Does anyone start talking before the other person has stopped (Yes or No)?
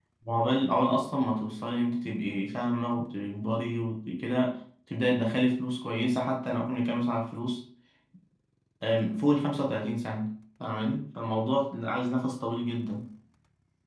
No